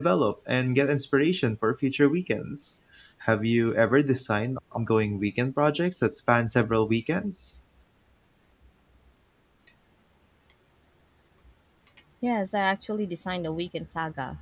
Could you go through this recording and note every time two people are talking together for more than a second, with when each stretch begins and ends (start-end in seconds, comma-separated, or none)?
none